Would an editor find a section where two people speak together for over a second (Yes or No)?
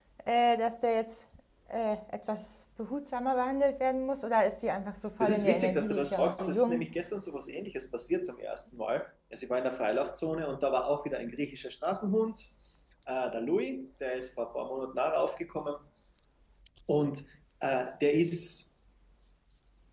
Yes